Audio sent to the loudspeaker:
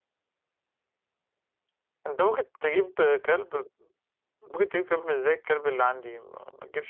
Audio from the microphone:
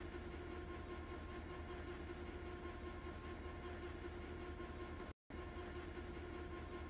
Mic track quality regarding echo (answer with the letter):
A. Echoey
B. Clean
B